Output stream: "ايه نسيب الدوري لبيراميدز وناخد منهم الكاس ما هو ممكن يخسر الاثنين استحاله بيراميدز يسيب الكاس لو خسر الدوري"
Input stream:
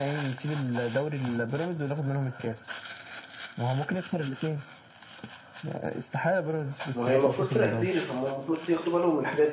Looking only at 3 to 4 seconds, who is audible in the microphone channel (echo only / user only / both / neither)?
echo only